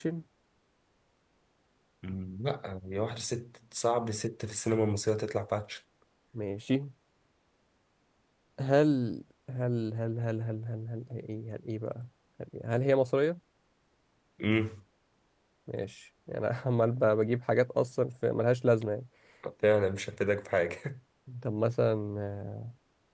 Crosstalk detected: No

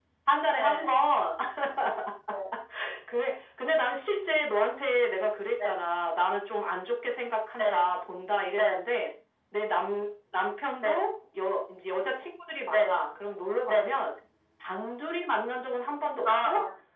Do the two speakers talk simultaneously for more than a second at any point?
No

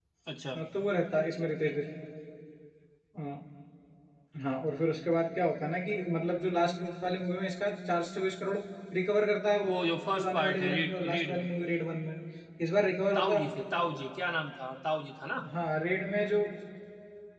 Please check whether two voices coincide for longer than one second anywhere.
Yes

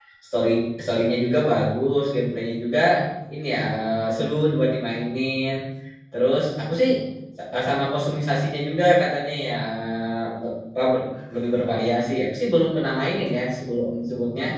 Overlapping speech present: No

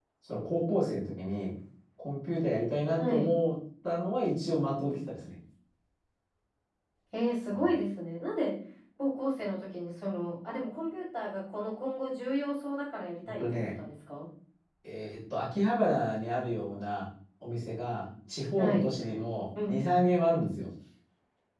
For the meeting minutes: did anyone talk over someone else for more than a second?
No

